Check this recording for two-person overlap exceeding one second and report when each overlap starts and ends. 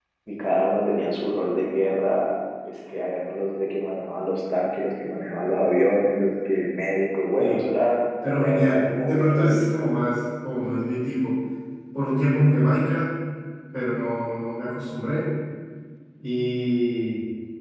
8.3-9.6

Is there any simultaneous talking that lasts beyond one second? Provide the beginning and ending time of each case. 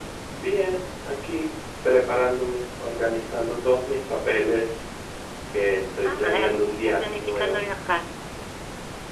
6.0-7.6

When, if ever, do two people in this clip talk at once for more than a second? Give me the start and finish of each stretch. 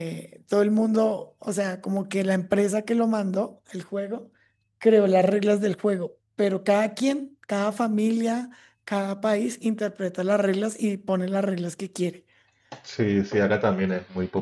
none

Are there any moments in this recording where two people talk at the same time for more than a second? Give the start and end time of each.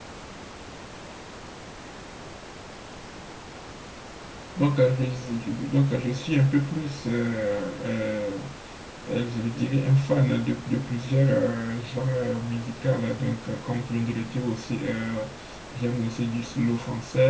none

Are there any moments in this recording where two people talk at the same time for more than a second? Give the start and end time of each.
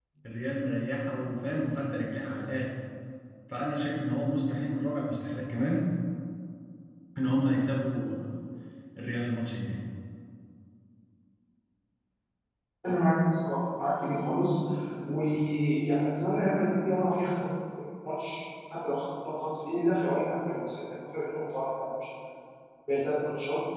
none

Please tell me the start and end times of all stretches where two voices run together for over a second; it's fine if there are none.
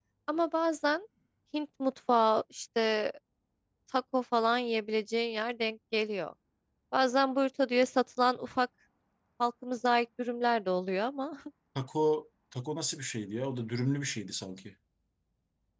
none

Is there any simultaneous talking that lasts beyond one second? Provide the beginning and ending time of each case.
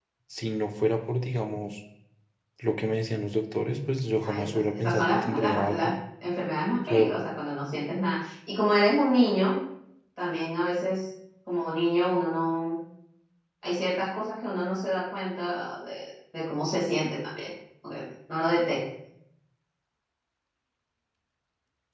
4.2-5.9

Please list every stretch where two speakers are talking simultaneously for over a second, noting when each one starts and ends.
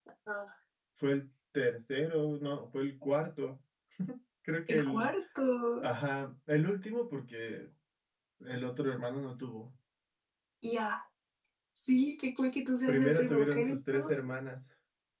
12.9-14.1

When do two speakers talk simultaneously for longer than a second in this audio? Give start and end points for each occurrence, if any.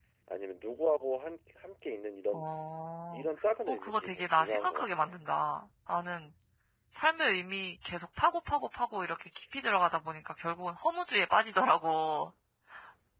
3.7-5.0

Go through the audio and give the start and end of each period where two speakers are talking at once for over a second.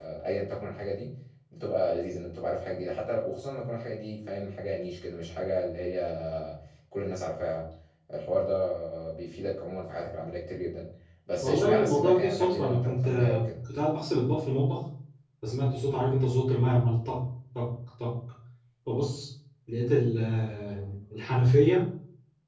11.4-13.4

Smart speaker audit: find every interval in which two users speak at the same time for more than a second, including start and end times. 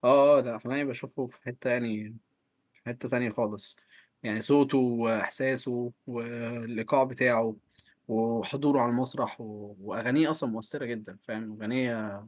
none

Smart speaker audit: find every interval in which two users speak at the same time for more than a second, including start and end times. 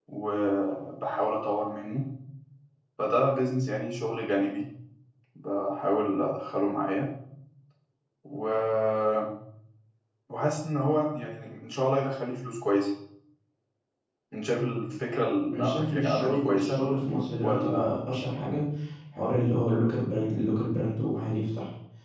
15.5-16.8

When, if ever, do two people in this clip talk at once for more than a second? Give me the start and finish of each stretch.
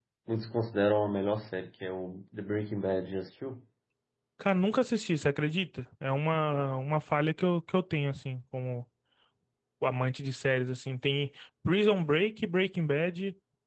none

